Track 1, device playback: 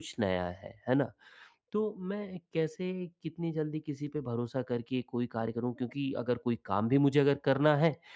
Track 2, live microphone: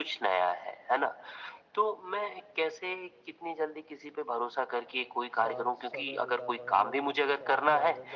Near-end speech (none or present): present